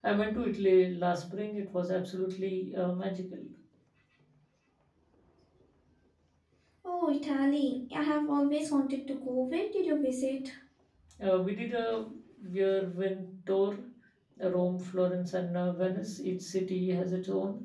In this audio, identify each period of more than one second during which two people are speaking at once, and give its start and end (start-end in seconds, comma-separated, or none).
none